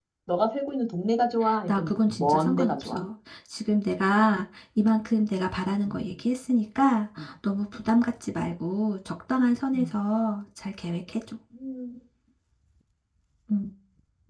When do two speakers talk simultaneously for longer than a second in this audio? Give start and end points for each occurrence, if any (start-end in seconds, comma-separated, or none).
1.7-3.0